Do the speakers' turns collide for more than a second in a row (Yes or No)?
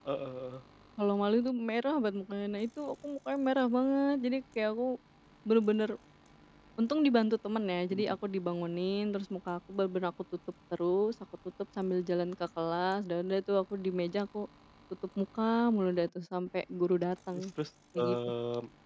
No